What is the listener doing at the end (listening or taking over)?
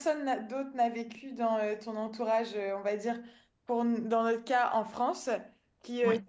listening